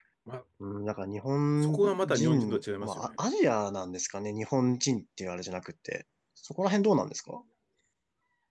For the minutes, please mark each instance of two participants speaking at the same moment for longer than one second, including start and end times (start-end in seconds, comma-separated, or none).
1.6-3.1